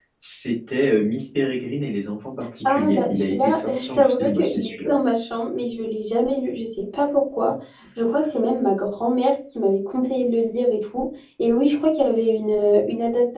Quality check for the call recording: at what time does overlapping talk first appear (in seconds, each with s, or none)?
2.6 s